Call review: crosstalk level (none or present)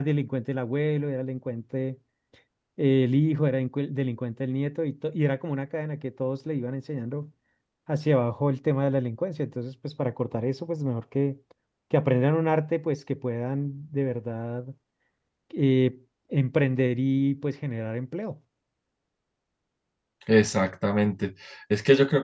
none